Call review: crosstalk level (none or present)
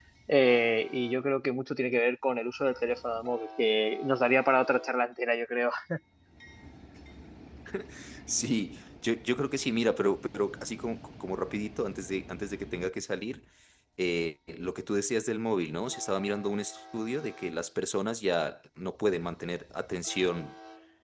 none